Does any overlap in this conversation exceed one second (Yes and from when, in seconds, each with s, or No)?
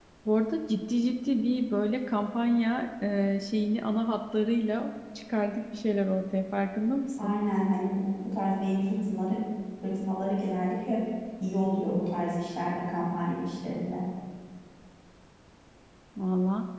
No